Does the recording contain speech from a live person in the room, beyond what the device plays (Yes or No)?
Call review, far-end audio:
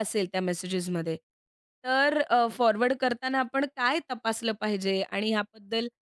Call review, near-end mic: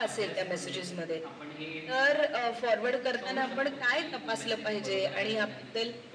Yes